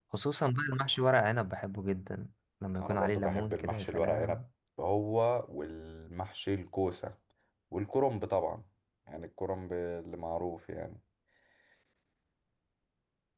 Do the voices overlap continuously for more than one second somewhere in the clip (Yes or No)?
Yes